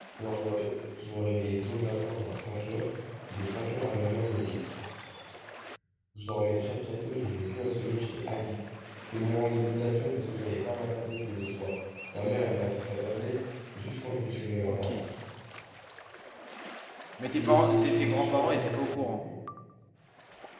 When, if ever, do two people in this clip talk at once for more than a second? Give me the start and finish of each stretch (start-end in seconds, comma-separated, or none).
17.4-19.2